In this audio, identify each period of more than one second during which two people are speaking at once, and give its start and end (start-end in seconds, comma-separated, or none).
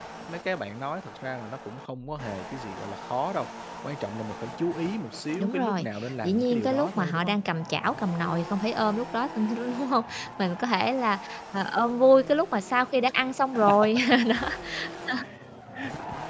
5.4-7.3